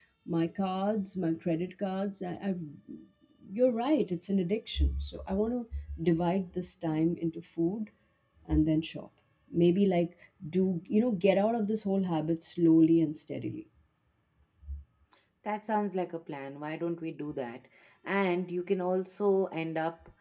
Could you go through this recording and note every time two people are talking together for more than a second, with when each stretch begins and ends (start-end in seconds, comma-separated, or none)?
none